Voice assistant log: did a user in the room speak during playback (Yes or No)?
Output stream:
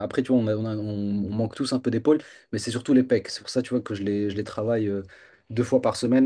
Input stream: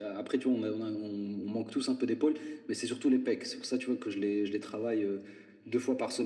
No